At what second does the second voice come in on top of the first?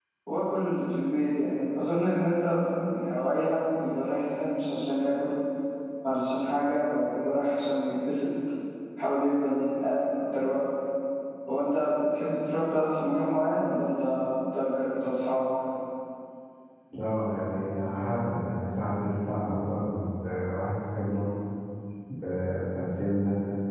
none

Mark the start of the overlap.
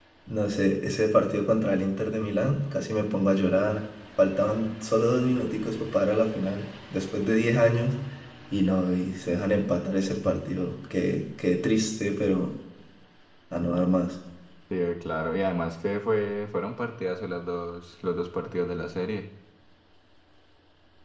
none

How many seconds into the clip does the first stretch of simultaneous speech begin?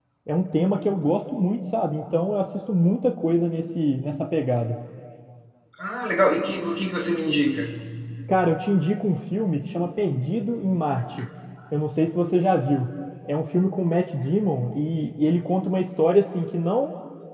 none

